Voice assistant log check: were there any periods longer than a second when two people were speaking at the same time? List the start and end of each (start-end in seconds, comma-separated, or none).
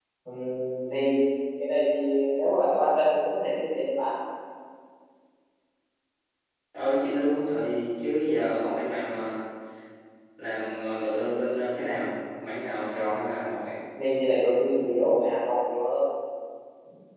none